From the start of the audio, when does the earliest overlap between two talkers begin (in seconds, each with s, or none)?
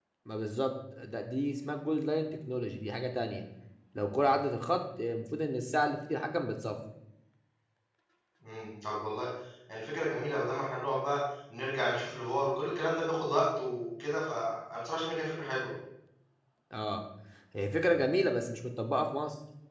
none